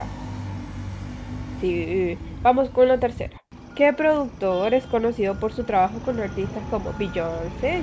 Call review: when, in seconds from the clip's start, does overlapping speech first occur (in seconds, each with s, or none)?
none